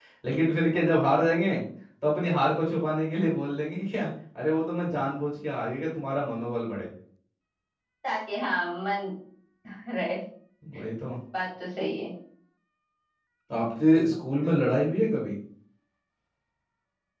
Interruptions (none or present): none